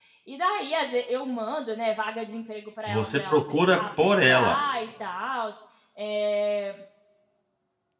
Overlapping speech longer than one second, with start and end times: 2.9-4.6

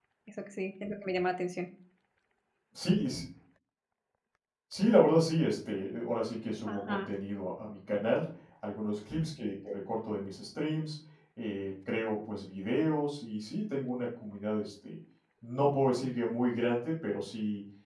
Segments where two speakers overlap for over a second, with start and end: none

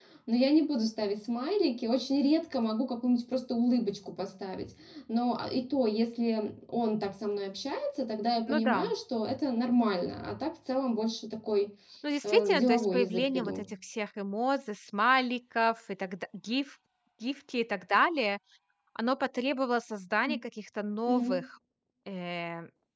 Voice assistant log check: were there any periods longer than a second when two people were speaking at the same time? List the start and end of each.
12.2-13.7

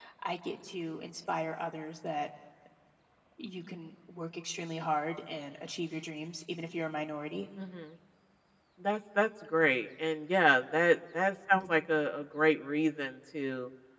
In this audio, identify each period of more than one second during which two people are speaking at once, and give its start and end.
none

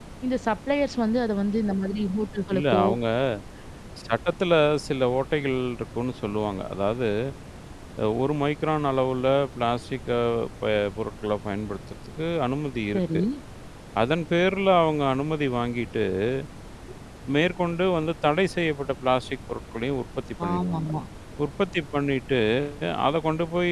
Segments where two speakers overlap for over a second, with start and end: none

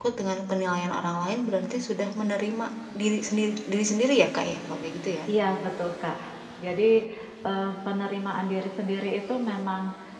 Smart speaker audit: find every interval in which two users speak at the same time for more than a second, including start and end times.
none

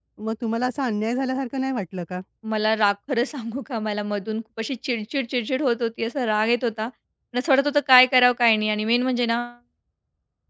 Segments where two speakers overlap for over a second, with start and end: none

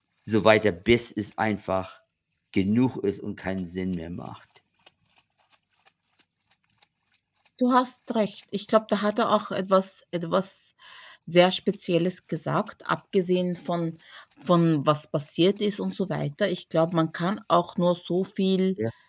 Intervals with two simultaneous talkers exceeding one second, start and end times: none

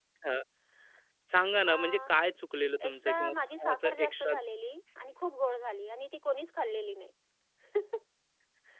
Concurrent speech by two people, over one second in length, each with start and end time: 2.9-4.3

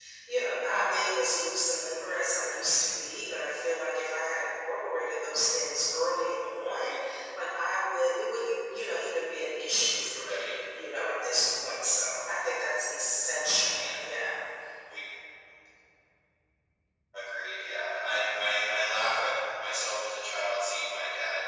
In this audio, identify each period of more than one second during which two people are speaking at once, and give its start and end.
none

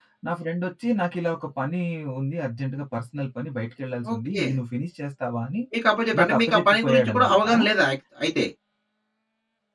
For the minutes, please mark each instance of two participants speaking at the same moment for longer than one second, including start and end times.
6.2-7.4

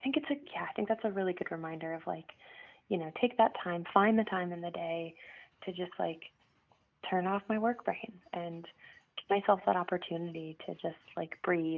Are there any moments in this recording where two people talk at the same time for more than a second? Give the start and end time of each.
none

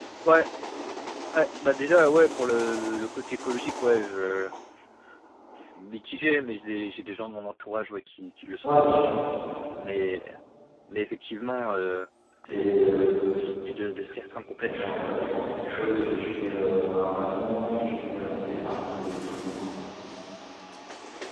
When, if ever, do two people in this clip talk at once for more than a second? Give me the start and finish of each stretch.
none

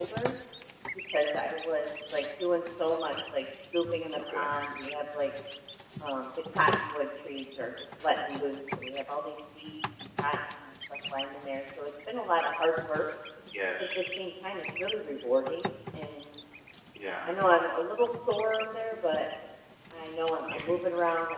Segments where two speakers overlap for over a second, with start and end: none

